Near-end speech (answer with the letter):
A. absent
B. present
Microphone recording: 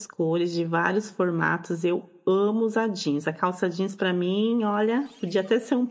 B